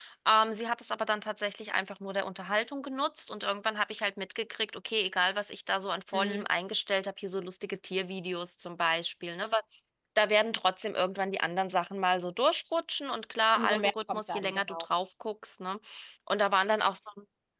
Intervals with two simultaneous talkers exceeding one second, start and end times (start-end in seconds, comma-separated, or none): 13.6-14.8